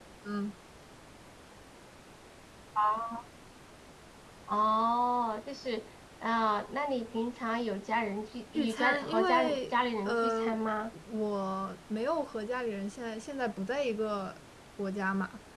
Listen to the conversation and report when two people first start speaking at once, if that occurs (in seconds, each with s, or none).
8.5 s